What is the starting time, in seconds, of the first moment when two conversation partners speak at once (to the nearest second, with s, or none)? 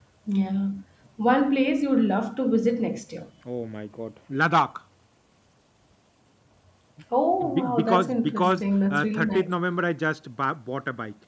8 s